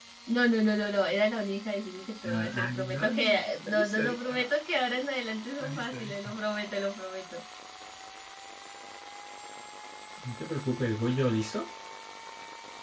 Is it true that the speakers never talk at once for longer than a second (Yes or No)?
No